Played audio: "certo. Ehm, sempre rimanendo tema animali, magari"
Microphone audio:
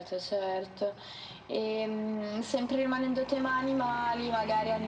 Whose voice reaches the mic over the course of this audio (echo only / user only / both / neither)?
echo only